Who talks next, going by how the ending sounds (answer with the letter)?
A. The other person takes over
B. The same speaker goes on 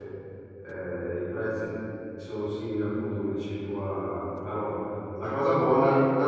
B